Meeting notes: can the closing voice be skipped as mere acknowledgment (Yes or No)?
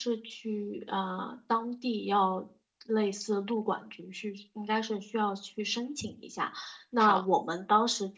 Yes